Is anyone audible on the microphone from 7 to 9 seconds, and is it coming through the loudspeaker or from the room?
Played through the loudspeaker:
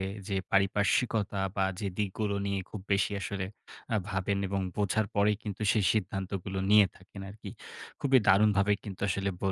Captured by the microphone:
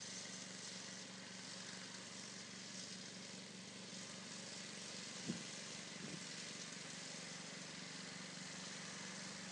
neither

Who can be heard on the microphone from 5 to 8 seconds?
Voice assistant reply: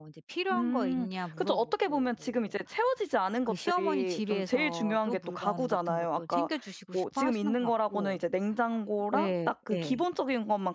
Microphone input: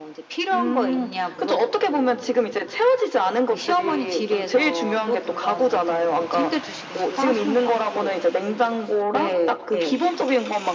echo only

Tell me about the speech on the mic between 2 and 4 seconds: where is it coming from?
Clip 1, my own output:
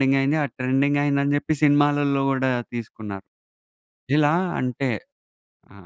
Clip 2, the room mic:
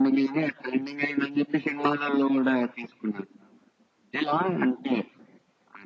echo only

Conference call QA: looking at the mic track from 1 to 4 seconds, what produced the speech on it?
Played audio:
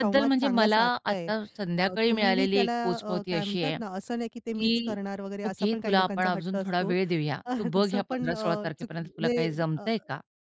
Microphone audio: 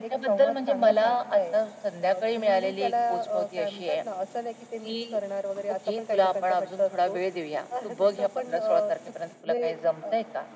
echo only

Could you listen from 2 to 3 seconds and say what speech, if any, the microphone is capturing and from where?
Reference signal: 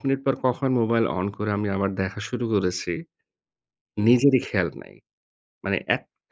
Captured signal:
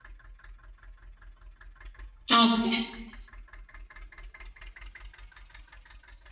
user only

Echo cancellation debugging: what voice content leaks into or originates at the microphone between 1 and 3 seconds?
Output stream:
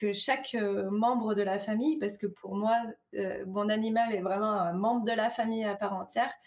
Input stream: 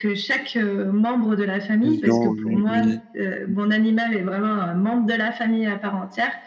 both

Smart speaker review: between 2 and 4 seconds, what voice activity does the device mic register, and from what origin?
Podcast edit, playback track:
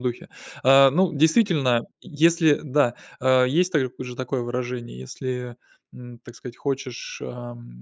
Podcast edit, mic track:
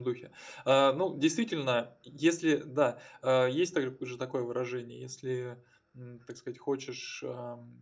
echo only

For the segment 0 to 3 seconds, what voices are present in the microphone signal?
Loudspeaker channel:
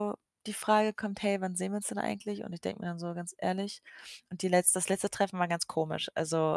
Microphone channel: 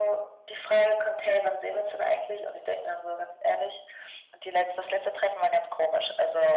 echo only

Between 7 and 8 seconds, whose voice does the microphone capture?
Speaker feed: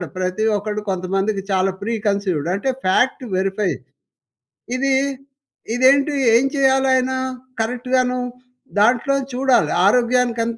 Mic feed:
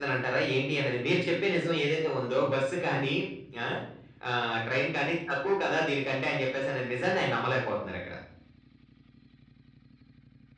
user only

